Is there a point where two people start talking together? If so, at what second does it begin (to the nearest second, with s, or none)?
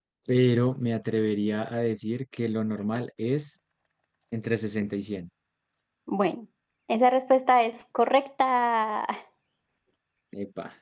none